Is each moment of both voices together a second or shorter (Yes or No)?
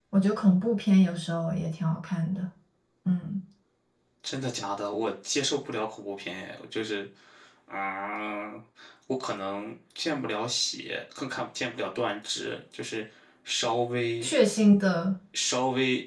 Yes